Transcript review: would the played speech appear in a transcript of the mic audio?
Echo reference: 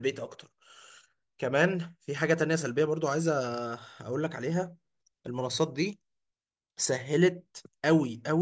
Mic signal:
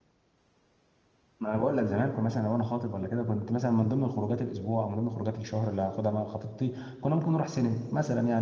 No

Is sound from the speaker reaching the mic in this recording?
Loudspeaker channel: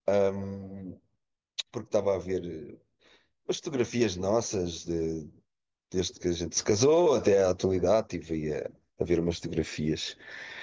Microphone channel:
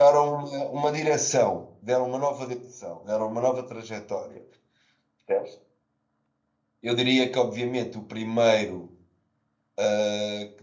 No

